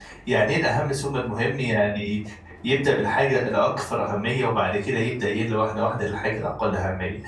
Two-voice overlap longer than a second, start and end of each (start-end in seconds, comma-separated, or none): none